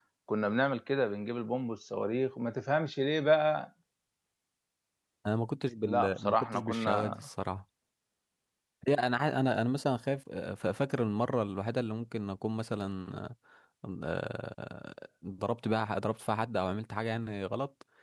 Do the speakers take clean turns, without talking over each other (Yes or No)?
No